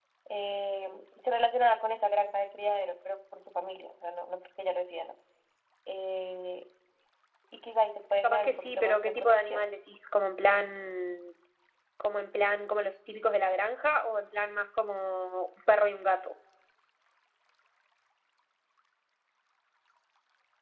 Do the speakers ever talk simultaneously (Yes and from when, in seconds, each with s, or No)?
Yes, from 8.2 s